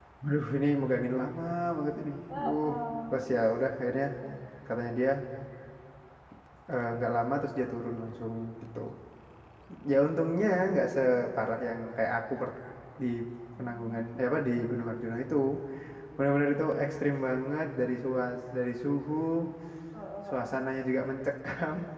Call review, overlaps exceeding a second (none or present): none